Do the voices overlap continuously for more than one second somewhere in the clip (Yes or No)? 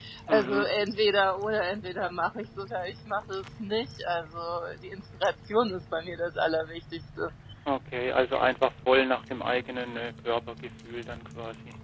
No